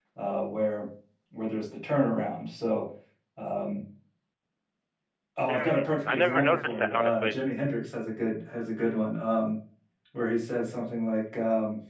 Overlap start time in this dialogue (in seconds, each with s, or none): 5.5 s